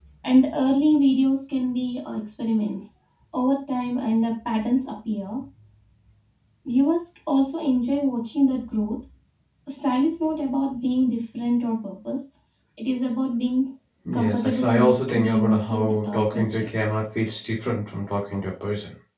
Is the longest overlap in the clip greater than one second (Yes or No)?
Yes